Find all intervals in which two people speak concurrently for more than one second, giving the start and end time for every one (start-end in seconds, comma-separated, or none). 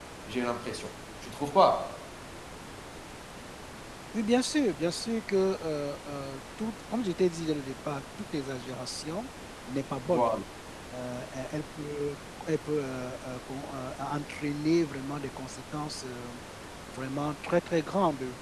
none